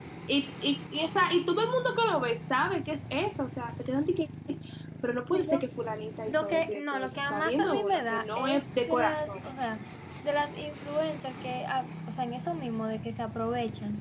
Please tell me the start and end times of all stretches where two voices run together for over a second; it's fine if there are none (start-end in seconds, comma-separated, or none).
6.3-9.4